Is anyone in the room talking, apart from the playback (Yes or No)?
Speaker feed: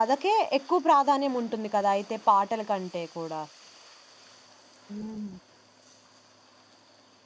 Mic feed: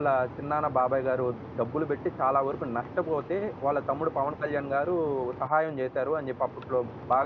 Yes